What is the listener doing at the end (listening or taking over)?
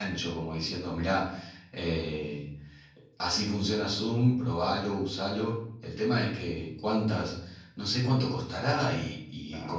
taking over